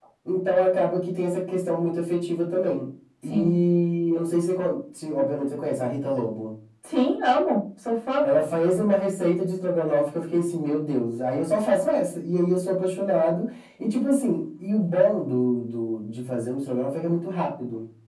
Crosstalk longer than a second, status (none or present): none